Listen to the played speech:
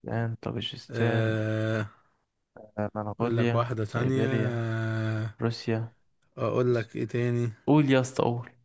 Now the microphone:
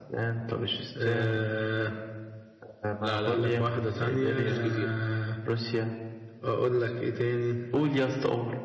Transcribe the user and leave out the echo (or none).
لا لا لا لا لا لا لا مش جزيرة